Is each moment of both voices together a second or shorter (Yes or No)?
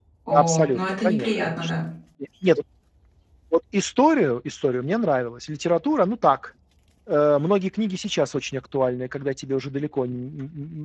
No